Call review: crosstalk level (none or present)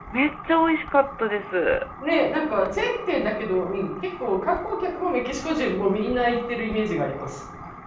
none